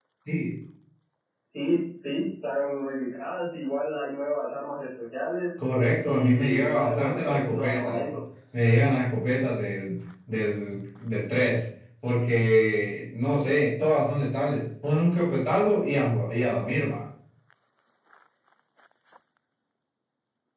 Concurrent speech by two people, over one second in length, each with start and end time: 6.0-8.2

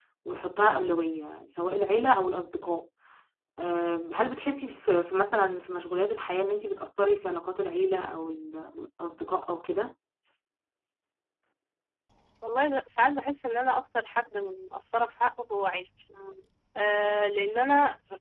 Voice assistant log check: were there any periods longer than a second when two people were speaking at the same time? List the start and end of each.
none

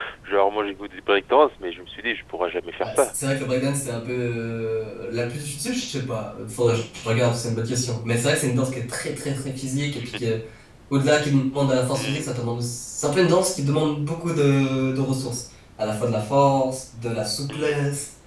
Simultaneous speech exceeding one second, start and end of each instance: none

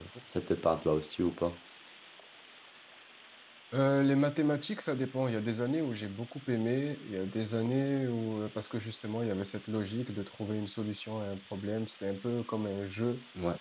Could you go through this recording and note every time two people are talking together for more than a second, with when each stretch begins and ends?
none

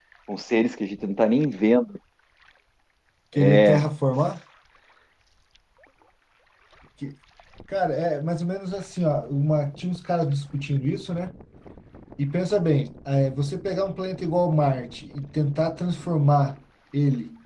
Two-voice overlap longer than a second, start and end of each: none

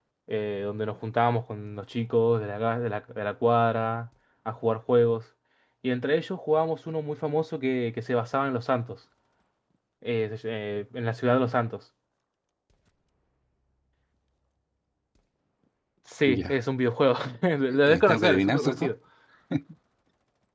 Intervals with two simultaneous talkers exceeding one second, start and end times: 17.7-18.9

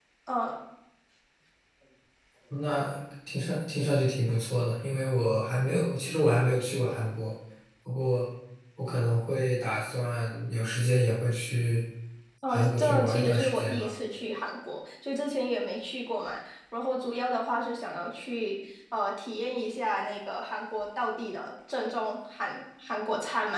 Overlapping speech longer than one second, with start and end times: 12.5-13.9

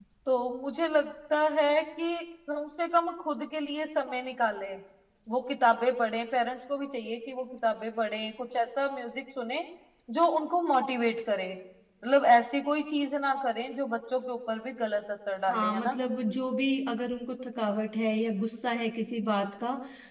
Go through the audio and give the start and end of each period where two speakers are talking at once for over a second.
none

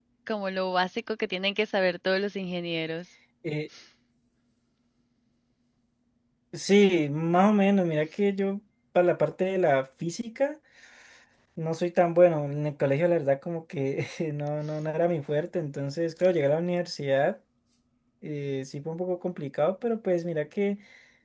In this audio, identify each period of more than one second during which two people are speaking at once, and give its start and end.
none

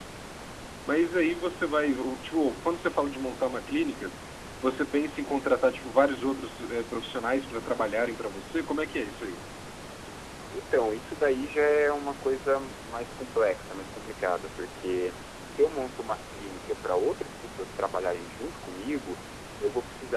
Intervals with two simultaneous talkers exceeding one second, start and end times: none

